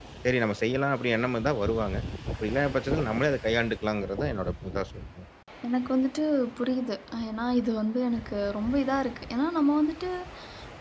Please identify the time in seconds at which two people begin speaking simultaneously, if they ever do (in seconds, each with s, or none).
none